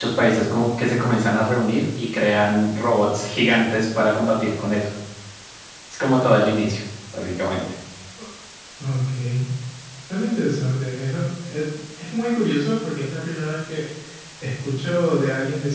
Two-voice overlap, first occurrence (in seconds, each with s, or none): none